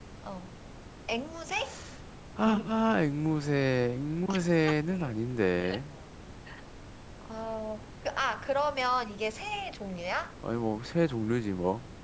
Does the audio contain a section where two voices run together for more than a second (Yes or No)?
No